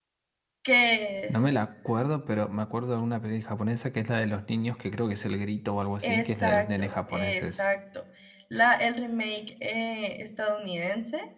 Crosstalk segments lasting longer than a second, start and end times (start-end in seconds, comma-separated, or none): 6.0-7.7